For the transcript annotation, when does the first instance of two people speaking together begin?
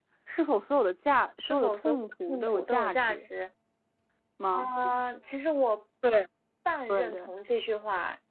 1.5 s

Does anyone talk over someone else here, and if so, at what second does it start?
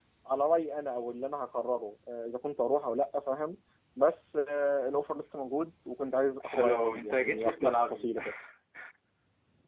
6.4 s

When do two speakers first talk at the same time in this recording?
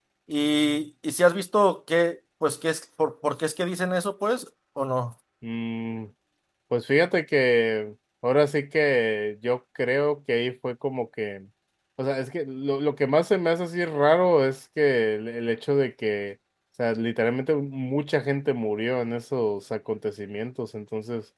none

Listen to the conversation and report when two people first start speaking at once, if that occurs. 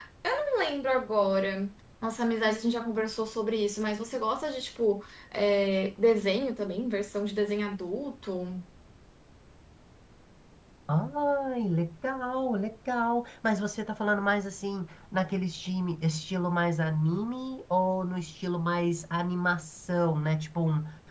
none

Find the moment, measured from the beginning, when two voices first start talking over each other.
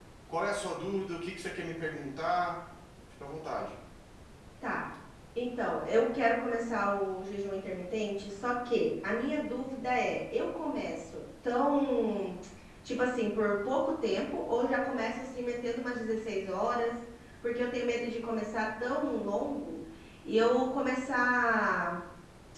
none

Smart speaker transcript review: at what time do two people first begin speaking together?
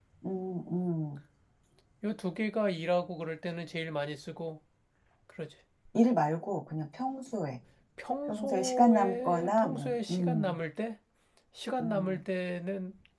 8.3 s

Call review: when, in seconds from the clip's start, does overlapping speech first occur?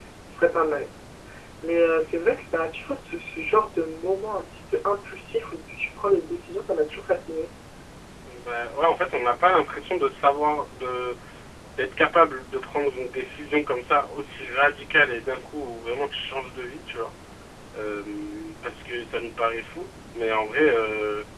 none

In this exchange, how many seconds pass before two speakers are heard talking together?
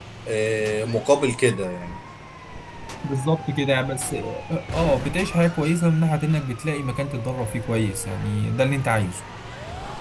none

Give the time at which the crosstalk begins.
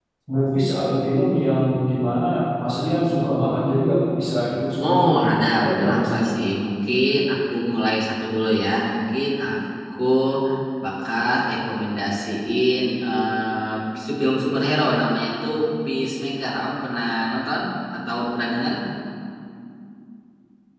4.8 s

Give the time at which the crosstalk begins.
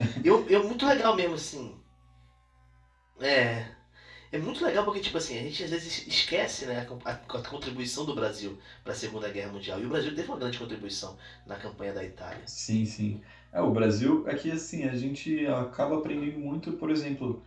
none

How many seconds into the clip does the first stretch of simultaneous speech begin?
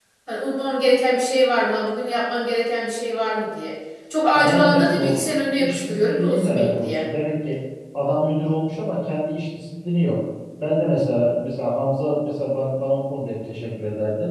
4.3 s

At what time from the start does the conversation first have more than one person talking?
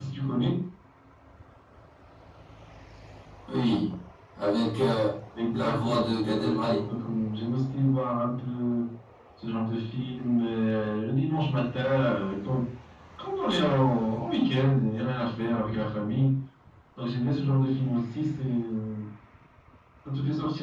5.5 s

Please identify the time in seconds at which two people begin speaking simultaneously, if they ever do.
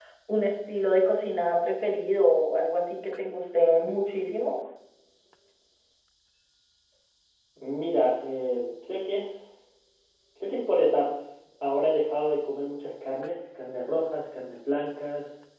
none

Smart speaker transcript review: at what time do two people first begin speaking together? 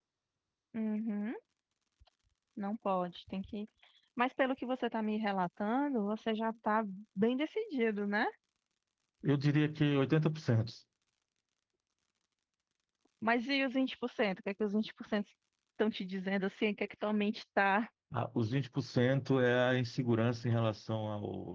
none

